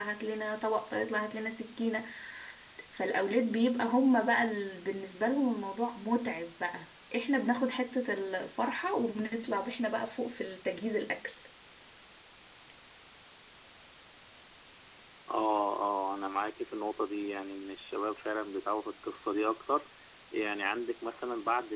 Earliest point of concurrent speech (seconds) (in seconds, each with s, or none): none